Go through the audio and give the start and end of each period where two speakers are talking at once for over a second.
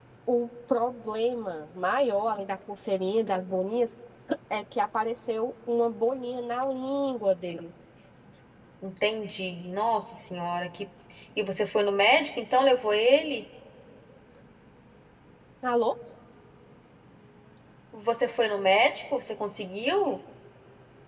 none

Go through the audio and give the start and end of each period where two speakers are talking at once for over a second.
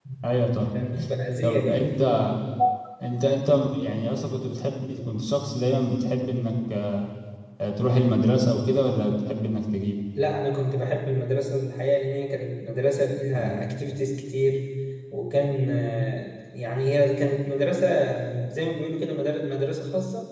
none

